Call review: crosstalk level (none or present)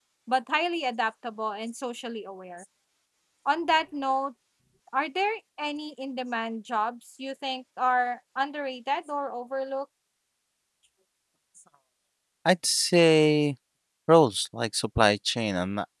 none